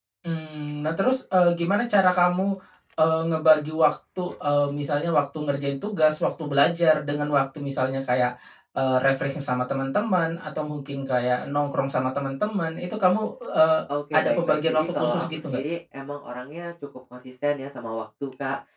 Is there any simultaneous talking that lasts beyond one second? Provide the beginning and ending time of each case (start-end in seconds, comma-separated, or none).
14.2-15.6